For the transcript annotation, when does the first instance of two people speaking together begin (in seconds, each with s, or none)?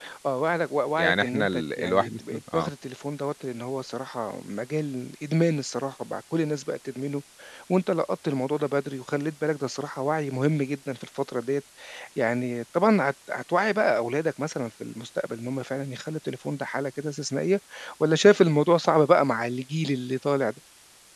1.0 s